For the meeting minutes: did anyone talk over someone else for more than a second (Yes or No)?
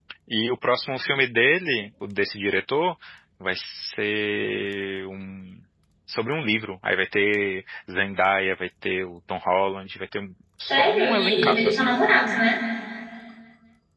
Yes